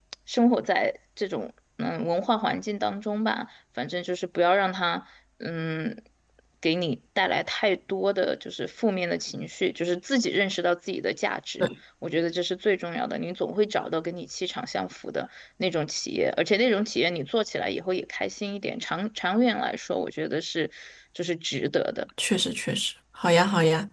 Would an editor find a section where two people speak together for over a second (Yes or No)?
No